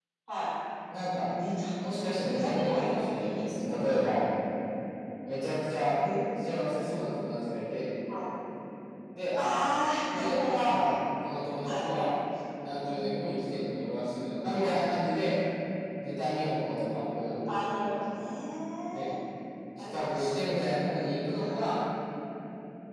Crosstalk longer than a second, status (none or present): present